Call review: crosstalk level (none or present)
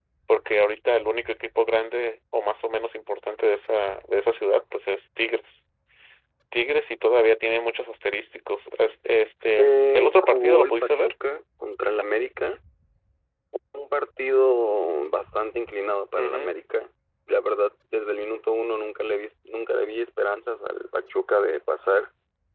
present